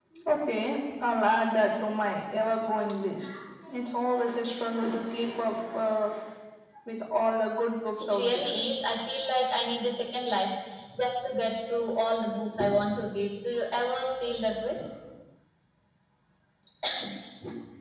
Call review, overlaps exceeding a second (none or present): none